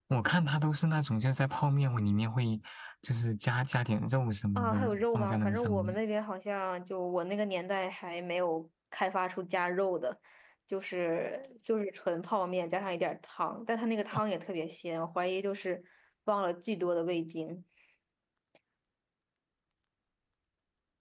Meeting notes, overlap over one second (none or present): present